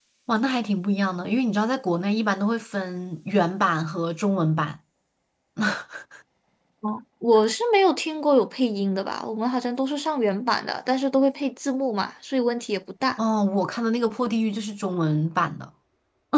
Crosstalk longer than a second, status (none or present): none